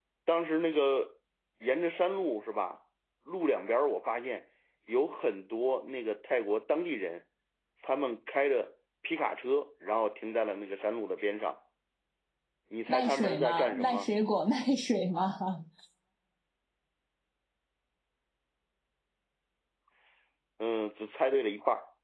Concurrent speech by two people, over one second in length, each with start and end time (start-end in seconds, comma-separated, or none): 12.9-14.1